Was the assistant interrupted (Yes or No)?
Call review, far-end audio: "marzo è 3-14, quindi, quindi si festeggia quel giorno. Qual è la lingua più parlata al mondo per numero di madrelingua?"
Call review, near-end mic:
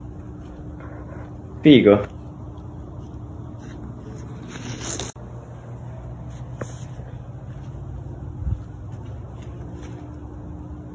Yes